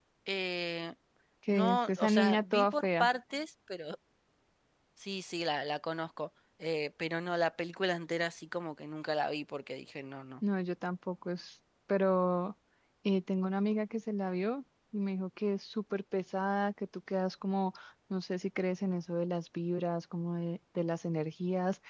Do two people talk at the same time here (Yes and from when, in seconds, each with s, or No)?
Yes, from 1.5 s